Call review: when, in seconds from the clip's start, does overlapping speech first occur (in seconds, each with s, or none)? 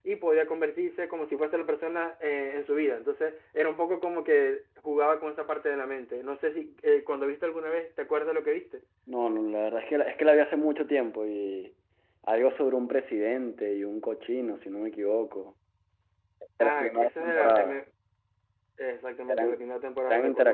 16.6 s